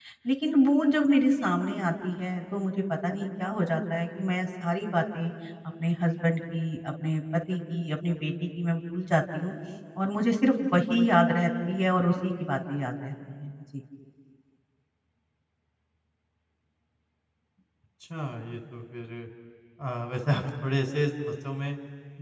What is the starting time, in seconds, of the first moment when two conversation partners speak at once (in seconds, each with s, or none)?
none